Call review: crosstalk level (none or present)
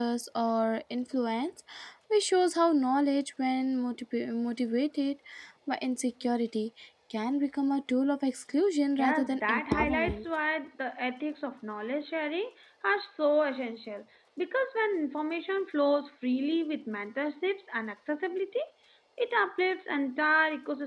present